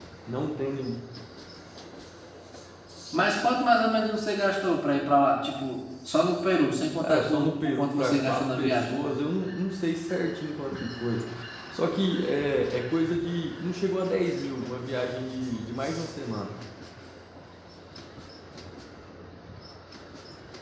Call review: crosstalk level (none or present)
present